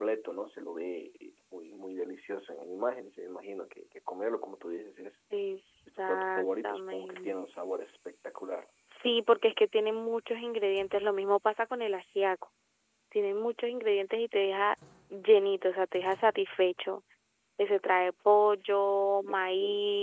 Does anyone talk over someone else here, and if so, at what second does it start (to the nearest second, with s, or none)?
6 s